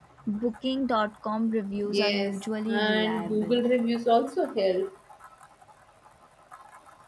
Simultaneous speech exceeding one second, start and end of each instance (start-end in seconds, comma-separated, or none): 1.9-3.6